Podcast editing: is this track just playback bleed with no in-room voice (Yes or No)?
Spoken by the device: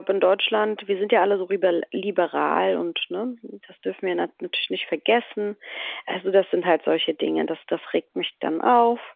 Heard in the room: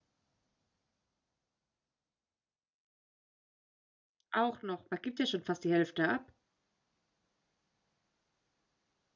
No